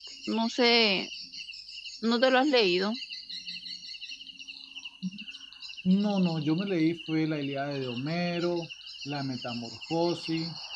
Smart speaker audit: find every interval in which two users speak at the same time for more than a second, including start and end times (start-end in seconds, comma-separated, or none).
none